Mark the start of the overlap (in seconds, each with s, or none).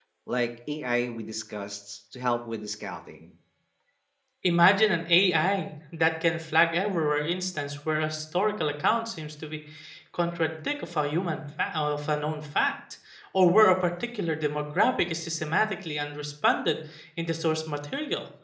none